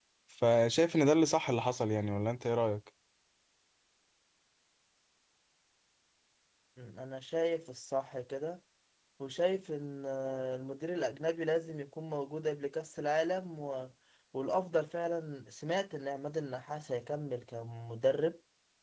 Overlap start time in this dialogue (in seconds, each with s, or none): none